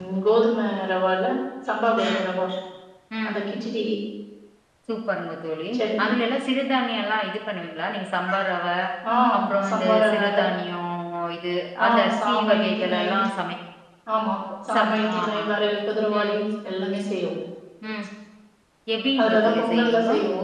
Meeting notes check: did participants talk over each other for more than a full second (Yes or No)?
Yes